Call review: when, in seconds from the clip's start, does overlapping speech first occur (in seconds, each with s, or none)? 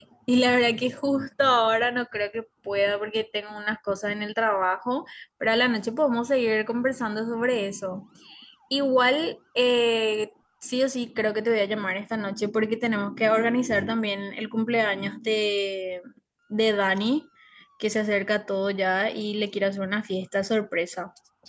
none